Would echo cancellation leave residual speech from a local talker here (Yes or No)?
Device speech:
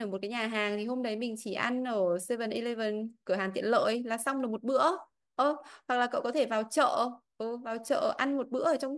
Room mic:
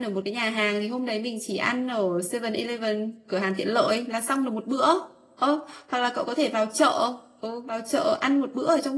No